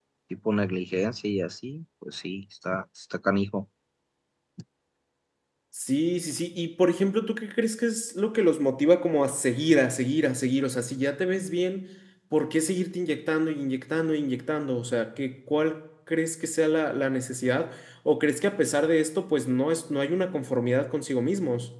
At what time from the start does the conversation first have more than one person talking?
none

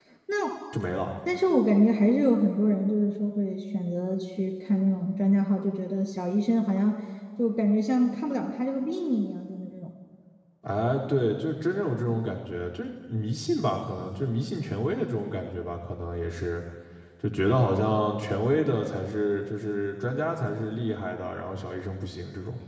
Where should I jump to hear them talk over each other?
none

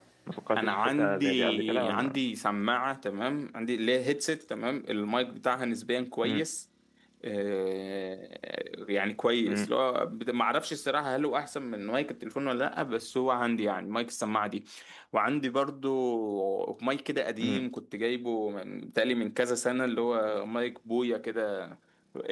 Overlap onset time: 1 s

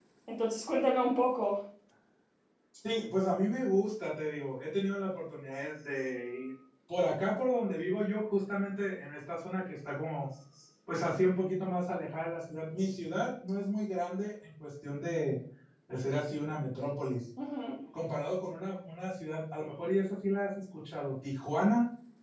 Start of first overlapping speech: none

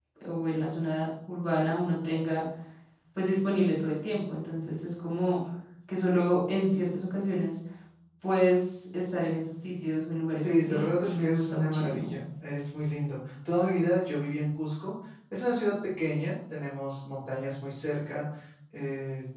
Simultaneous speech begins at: 10 s

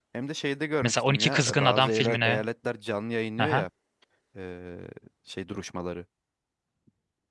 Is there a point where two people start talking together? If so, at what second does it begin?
1 s

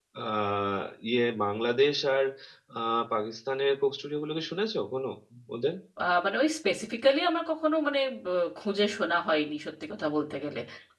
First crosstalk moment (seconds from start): none

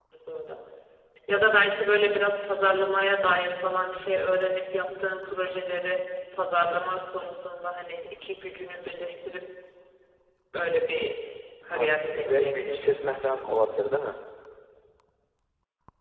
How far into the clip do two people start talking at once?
12 s

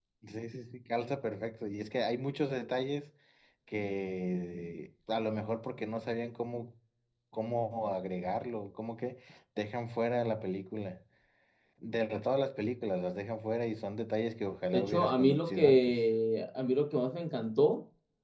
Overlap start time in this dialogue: 15 s

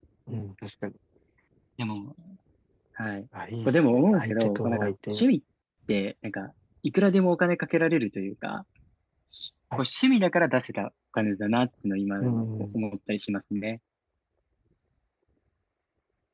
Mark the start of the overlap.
4 s

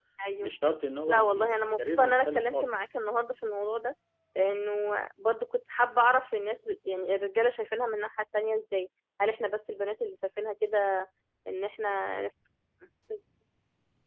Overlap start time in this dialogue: 1 s

